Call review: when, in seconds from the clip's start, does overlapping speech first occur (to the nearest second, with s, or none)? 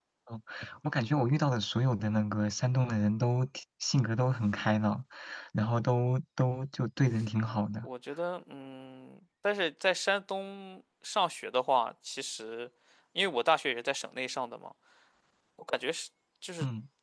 none